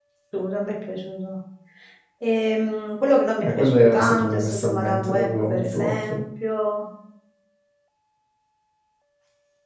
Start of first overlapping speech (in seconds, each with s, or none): 3.4 s